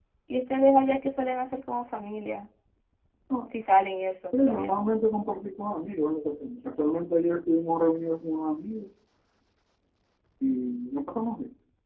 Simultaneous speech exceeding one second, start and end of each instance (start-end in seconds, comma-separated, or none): none